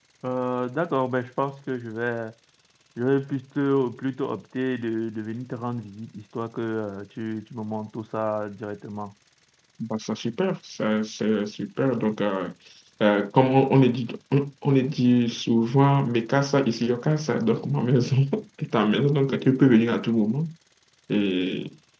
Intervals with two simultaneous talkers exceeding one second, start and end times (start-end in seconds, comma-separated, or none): none